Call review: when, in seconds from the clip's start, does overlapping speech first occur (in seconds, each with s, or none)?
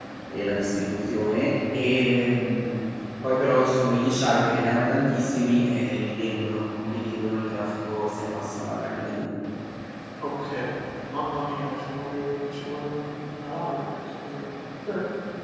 none